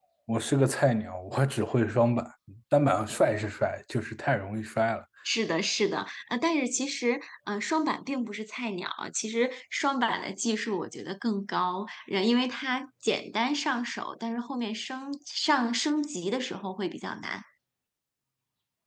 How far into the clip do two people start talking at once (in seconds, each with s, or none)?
none